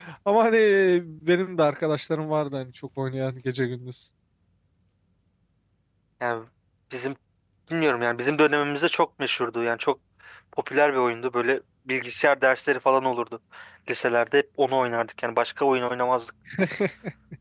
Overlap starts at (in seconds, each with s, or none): none